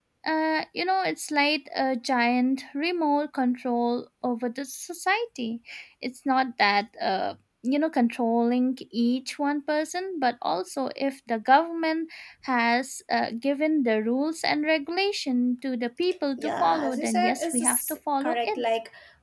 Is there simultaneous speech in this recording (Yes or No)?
Yes